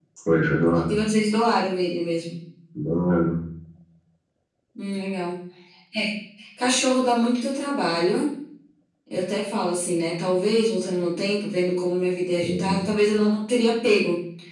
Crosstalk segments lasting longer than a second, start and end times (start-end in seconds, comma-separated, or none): none